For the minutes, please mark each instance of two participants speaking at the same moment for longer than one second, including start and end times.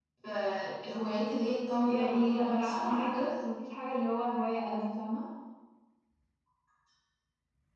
1.8-3.3

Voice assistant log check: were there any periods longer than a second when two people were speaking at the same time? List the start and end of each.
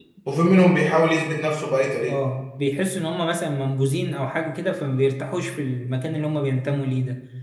none

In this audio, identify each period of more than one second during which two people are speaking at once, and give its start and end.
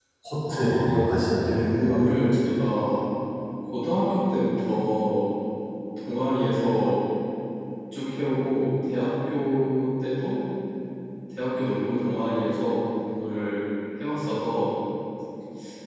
0.5-2.0

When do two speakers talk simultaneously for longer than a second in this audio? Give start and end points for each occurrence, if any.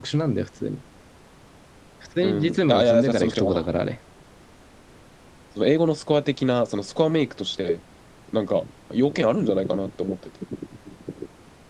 2.2-3.6

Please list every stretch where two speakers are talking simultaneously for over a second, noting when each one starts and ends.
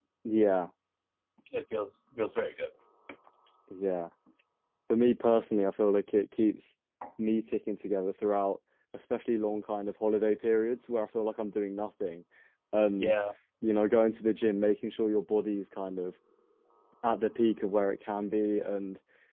none

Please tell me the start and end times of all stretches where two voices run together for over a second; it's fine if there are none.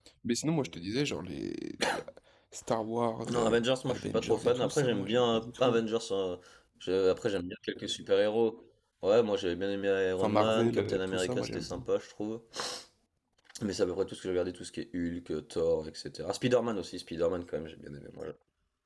3.3-5.8, 10.2-11.8

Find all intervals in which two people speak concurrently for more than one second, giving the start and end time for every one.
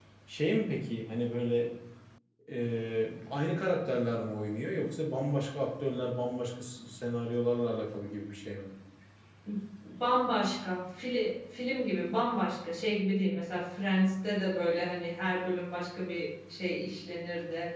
none

